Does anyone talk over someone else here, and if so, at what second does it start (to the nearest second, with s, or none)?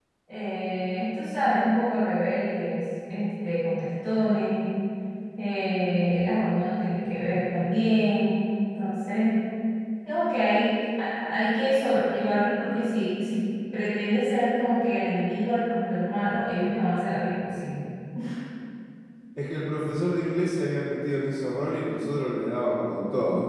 none